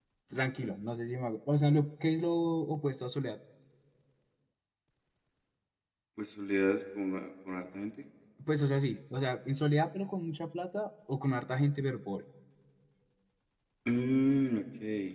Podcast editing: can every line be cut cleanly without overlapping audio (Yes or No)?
Yes